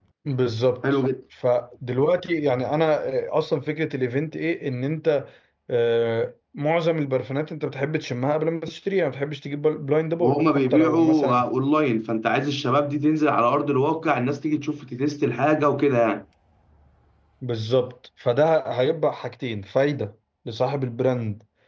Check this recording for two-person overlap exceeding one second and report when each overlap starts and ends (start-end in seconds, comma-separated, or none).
10.2-11.4